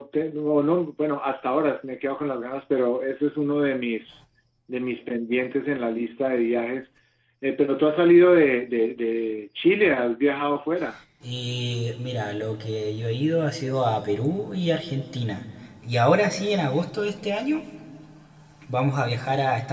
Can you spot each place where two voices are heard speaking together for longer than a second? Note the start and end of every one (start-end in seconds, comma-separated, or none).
none